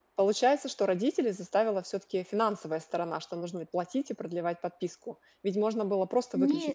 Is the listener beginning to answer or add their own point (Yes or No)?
No